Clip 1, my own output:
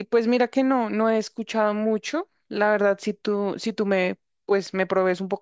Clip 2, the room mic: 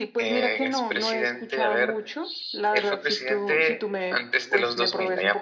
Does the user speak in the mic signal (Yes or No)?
Yes